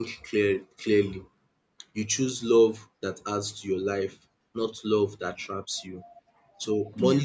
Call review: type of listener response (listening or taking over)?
listening